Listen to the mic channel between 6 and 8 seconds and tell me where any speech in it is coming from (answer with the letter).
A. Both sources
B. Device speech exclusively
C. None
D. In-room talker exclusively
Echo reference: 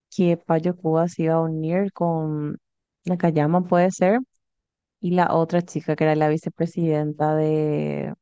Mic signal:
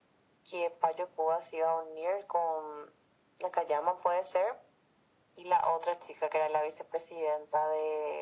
B